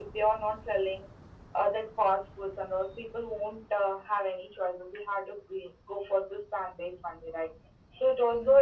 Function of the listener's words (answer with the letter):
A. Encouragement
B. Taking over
A